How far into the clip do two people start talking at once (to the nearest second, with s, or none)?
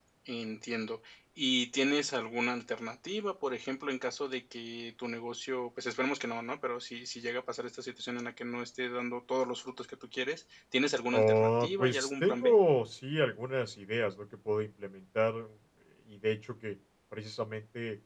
11 s